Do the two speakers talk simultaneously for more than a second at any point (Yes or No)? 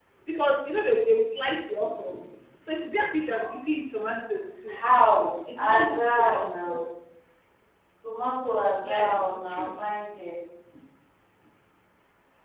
Yes